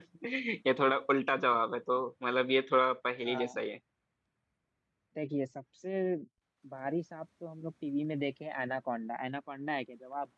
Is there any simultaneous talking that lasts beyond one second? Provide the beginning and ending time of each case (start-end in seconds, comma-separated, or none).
none